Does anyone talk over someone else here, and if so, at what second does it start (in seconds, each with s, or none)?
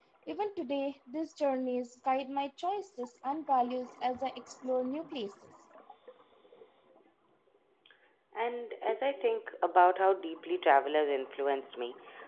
none